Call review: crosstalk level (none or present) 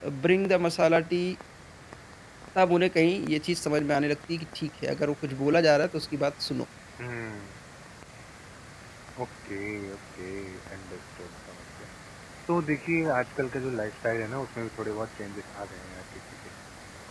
none